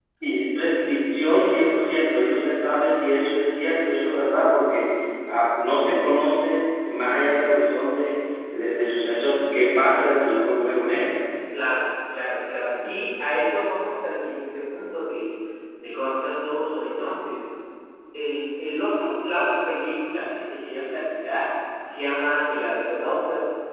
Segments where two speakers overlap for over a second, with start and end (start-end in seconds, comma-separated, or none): none